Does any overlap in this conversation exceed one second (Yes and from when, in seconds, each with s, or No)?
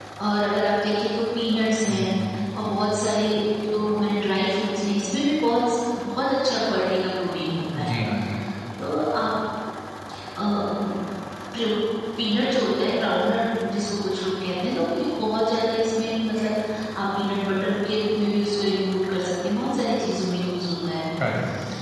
No